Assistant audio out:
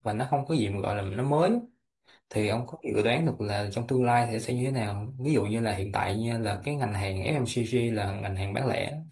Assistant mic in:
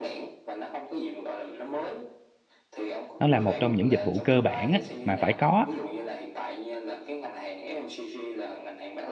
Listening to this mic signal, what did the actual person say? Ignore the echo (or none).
nó là một trong những dịch vụ cơ bản á, mà phải có á.